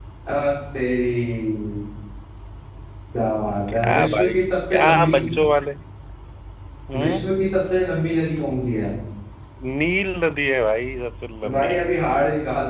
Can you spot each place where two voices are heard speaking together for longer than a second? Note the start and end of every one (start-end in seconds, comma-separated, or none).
3.7-5.2